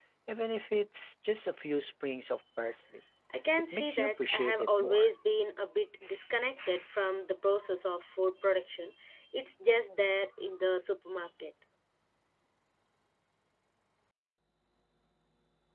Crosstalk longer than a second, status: present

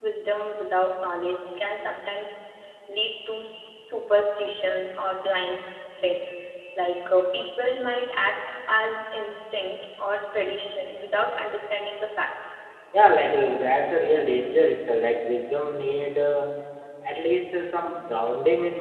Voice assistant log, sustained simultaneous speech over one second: none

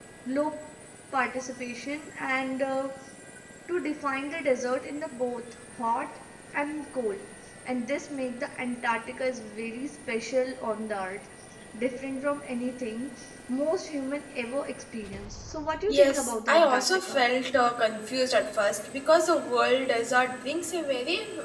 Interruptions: present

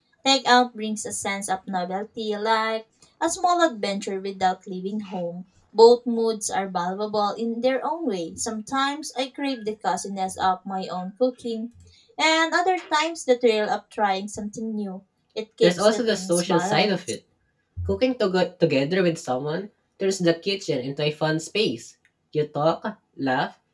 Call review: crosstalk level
present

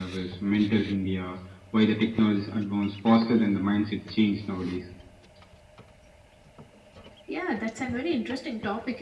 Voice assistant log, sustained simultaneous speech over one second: none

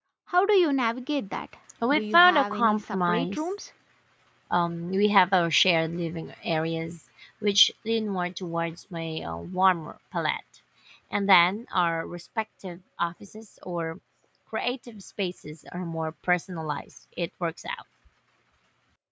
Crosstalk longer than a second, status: present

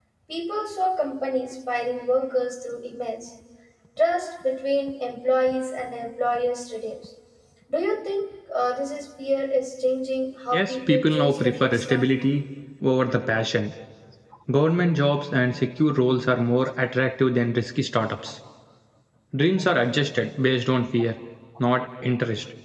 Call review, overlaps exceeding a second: present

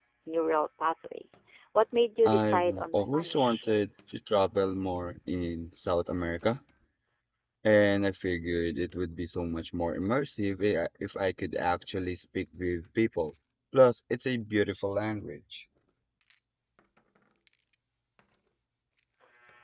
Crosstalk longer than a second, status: present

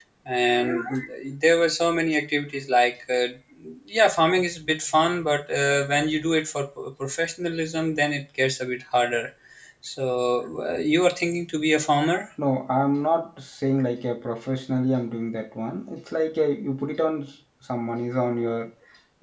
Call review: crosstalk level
none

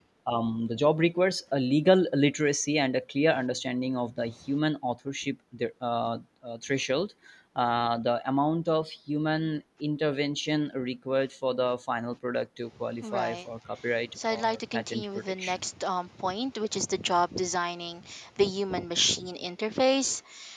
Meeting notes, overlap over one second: present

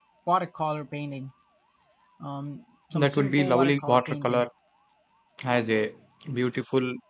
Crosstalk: present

